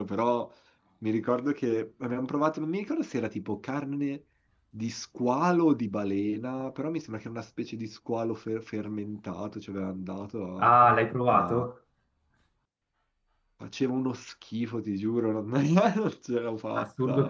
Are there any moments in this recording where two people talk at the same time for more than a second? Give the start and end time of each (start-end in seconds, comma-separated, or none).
none